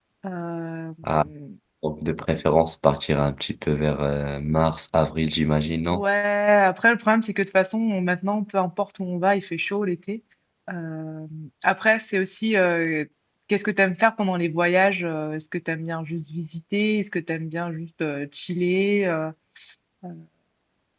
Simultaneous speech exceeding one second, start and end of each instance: none

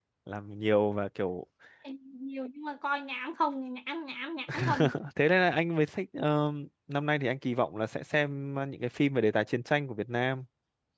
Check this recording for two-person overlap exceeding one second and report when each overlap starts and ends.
none

